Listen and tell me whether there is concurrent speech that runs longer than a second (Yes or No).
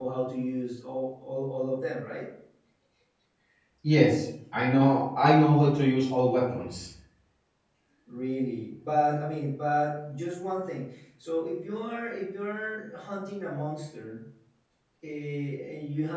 No